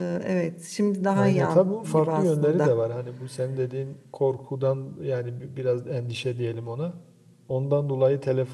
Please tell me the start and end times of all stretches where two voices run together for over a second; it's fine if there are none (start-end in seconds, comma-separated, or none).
1.1-2.7